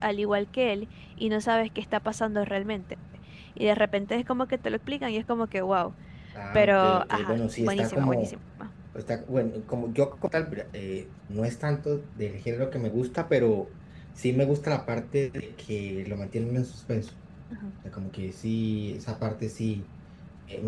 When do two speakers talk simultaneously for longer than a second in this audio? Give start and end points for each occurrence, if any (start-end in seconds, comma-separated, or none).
6.5-8.3